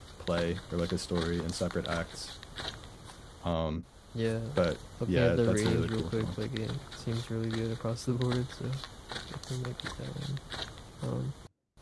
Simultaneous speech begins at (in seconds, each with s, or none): 5.1 s